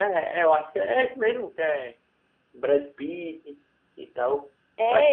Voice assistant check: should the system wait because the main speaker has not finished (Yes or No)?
No